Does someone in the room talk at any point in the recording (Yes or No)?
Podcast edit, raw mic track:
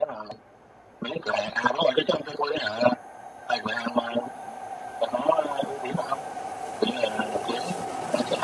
No